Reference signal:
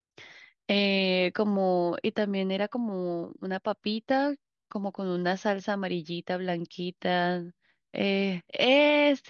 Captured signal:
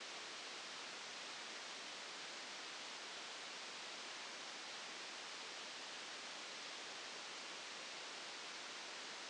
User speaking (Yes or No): No